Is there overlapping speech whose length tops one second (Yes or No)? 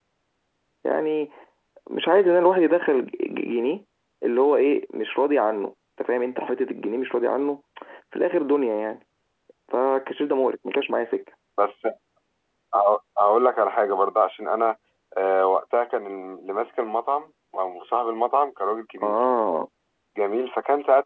No